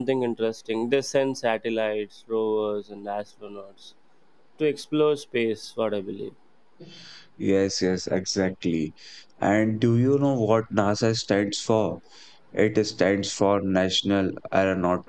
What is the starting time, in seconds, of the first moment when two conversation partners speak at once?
none

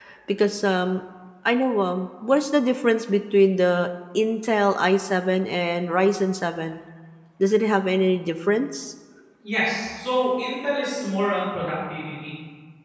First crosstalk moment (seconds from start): none

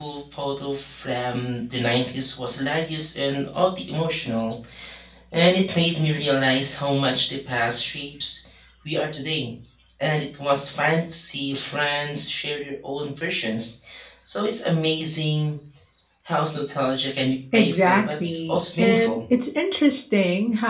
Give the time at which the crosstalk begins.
18 s

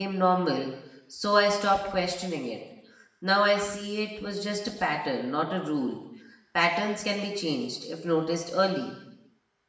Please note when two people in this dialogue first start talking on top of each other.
none

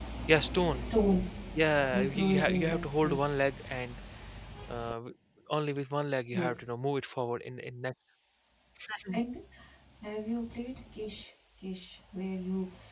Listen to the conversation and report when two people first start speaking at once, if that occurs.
2 s

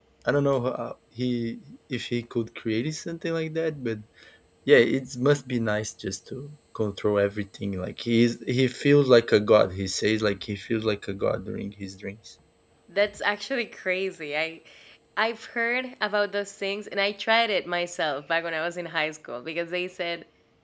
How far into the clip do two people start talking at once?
none

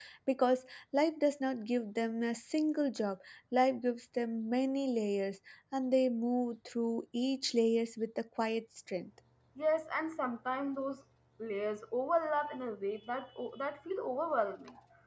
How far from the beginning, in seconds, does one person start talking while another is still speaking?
none

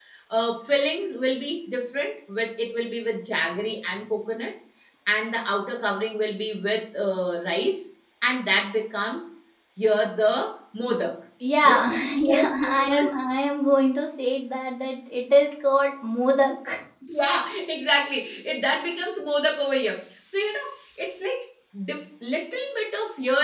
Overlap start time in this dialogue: 12 s

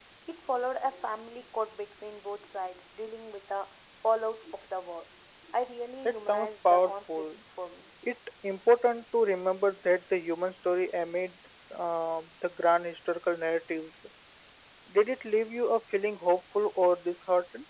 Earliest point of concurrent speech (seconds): 6 s

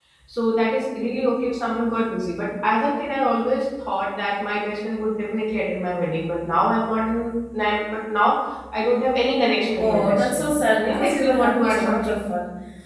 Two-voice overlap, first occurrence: 10 s

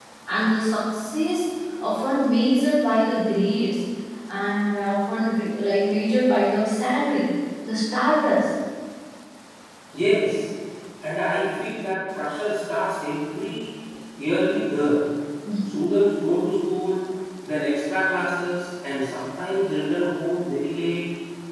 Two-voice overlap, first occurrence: none

